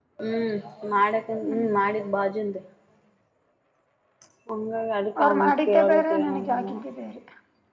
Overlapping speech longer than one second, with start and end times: 5.2-6.7

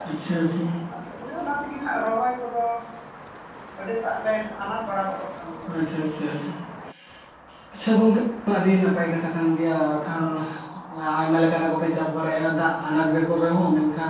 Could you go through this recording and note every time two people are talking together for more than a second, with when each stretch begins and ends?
none

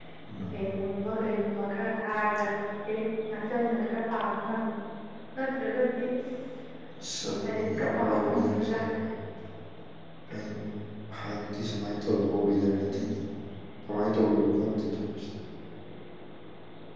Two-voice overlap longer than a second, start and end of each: 7.4-8.8

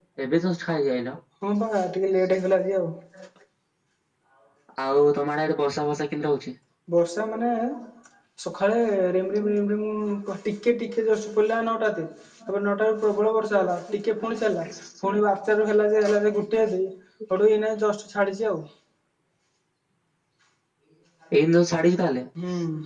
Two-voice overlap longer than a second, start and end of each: none

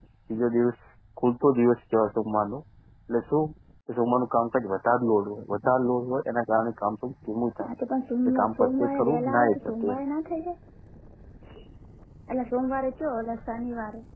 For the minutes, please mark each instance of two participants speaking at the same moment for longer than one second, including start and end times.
8.2-10.0

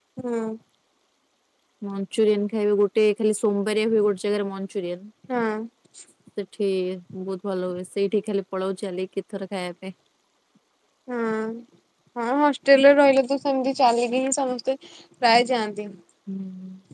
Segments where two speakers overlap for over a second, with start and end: none

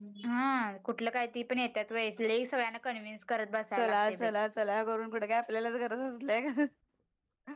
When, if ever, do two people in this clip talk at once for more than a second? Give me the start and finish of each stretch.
none

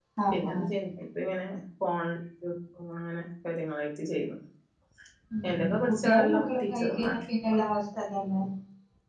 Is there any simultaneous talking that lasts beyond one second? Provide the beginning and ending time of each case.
5.5-7.1

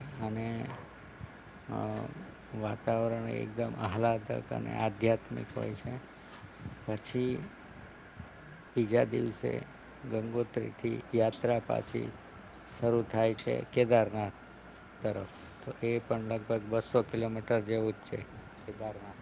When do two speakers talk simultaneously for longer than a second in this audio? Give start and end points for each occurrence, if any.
none

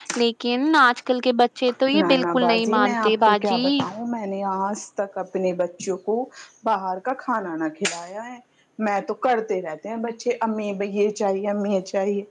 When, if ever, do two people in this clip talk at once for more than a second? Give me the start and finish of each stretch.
2.0-3.6

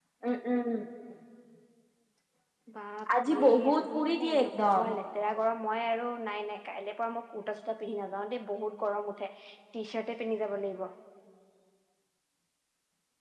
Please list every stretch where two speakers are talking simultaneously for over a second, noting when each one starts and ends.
3.3-4.9

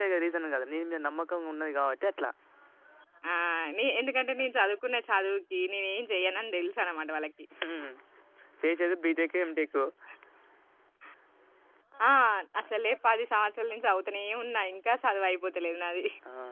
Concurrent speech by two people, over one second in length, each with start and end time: none

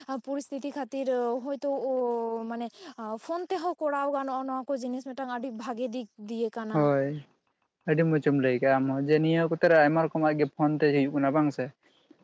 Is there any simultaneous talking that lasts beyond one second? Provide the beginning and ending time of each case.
none

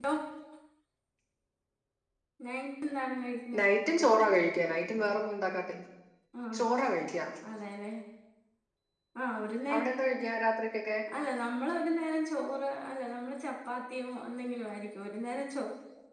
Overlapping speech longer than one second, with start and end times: none

